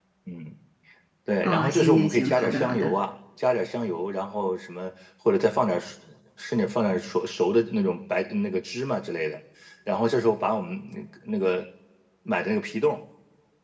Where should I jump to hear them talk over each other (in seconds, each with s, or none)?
1.4 s